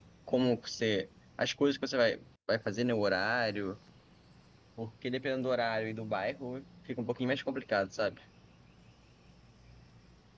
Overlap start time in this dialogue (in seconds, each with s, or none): none